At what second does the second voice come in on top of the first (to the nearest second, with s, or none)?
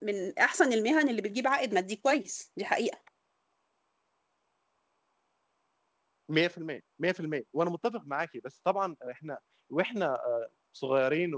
none